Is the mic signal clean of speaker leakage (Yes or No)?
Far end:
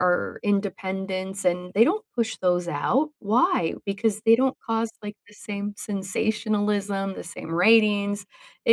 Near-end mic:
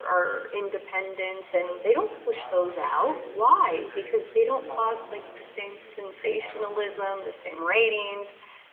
No